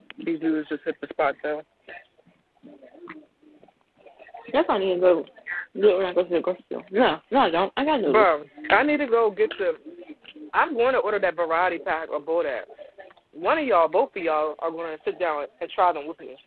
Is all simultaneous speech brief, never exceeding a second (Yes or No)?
Yes